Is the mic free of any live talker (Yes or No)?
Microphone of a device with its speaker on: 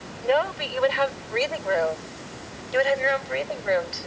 Yes